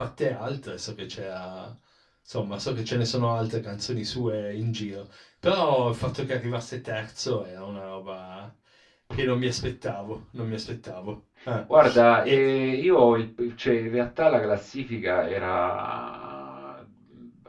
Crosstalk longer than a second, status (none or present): none